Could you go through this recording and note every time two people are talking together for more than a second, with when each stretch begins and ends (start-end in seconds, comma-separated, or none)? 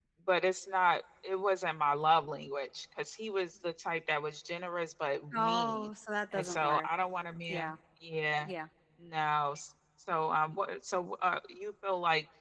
none